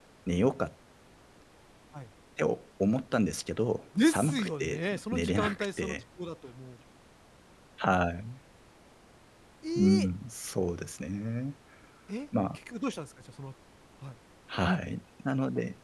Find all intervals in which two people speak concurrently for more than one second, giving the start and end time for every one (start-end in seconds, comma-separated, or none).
4.0-6.0